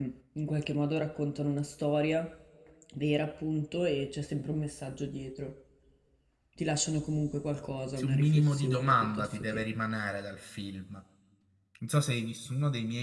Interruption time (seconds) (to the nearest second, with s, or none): 8 s